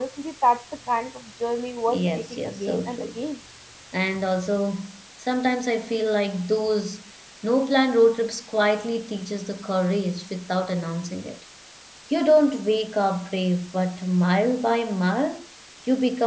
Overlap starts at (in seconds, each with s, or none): 1.9 s